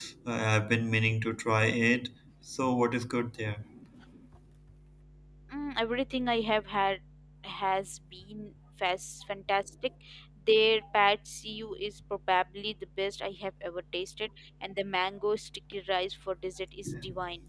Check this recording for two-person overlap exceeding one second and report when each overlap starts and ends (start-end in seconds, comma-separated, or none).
none